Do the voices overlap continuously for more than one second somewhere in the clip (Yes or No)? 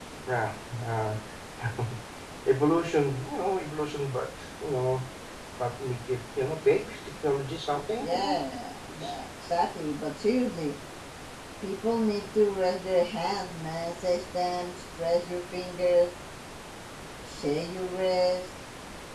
No